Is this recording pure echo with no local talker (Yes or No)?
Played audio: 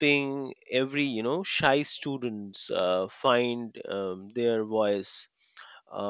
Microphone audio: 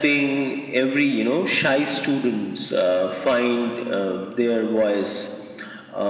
Yes